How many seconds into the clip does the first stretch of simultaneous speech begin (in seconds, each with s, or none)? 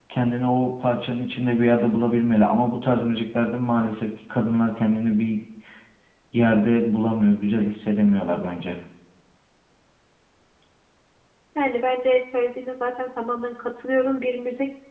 none